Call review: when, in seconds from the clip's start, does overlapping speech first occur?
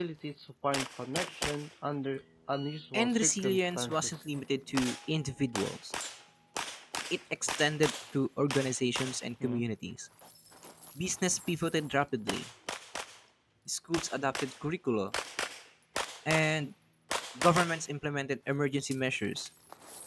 2.9 s

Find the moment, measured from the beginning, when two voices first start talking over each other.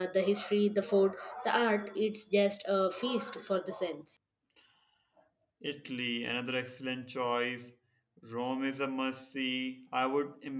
none

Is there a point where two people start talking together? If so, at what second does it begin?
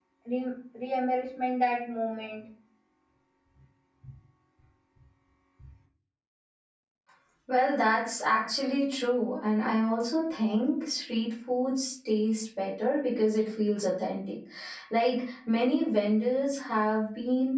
none

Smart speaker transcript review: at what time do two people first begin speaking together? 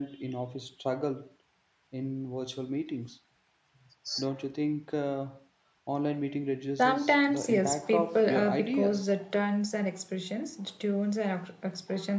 6.8 s

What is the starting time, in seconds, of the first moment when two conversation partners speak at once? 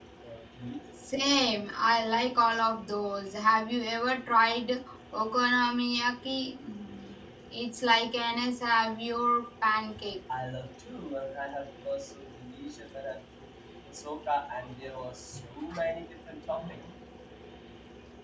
none

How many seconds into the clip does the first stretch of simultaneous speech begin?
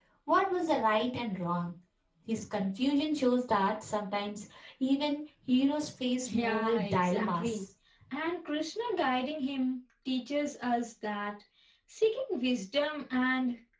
6.3 s

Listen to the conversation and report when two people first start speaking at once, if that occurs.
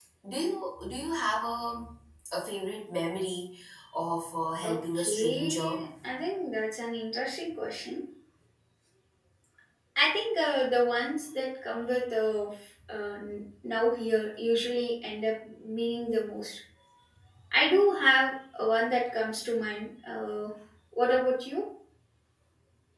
4.6 s

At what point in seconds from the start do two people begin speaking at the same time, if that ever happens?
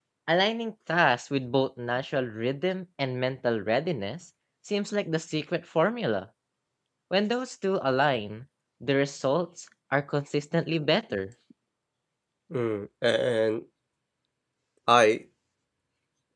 none

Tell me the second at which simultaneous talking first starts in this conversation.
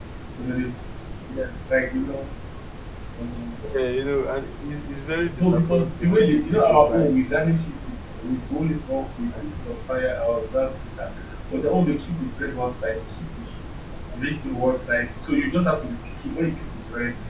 5.4 s

